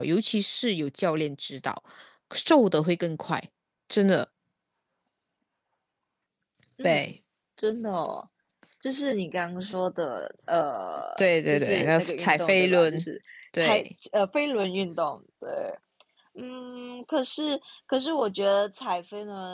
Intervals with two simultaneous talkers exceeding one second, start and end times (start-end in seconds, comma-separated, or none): 11.2-13.1